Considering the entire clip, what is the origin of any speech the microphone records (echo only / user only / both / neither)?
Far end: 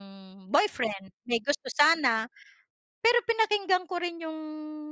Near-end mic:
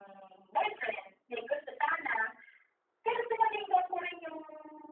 echo only